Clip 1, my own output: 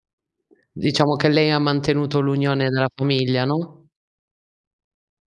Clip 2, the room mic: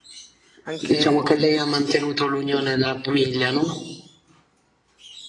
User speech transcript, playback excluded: anche

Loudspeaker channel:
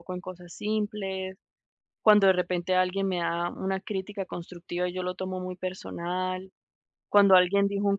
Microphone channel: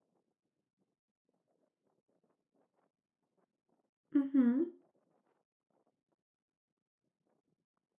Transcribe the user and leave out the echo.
Ujú,

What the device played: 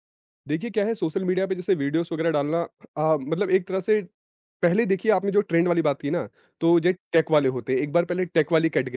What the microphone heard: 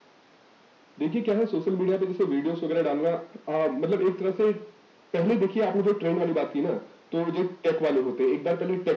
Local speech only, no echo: none

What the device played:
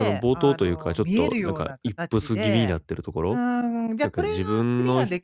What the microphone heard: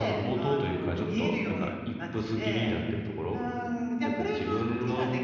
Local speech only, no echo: ええ、

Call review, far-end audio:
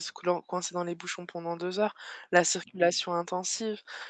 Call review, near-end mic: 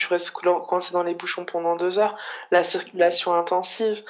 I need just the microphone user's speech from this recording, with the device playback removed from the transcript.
none

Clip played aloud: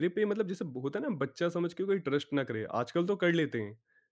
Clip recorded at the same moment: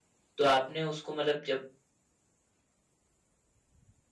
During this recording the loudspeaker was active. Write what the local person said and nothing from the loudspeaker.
तो आपने उसको मतलब जब

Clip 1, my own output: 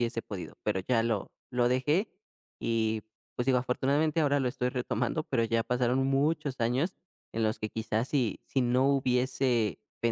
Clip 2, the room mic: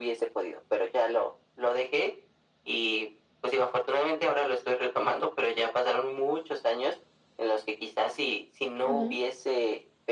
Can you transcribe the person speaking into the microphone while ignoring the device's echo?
Ujú,

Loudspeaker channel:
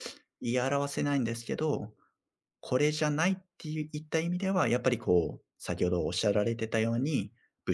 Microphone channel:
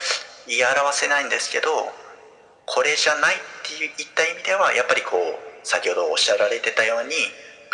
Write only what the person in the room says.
none

